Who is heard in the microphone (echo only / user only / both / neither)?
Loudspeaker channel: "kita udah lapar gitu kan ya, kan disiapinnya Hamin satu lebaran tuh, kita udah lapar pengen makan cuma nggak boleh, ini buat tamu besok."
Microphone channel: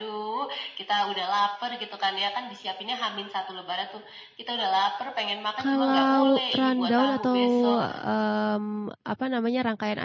both